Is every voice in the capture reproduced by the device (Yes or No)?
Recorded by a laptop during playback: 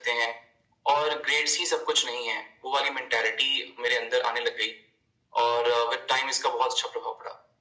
Yes